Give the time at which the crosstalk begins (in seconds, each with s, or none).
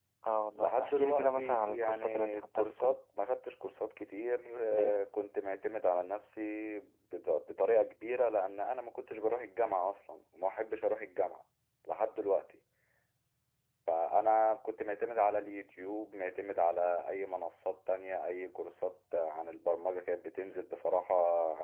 0.6 s